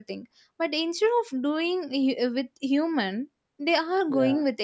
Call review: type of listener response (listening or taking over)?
listening